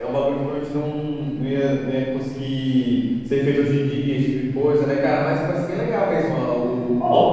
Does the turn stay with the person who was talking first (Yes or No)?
No